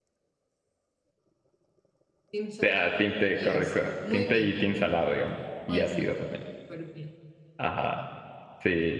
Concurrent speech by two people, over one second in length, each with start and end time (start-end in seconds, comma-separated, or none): 2.6-4.5